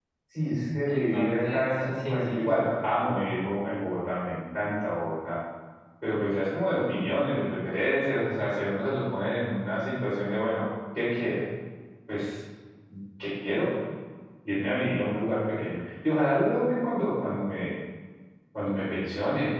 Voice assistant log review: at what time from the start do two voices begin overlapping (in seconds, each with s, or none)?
0.9 s